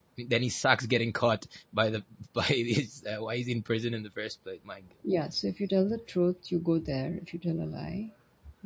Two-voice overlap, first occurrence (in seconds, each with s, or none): none